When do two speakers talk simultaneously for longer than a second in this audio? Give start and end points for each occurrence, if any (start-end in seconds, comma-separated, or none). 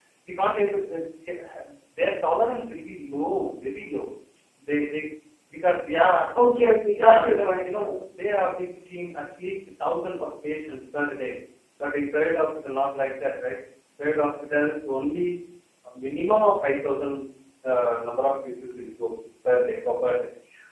7.0-8.2